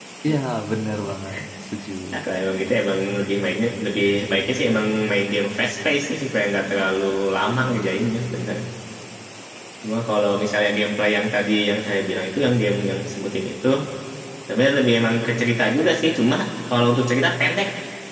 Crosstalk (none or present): none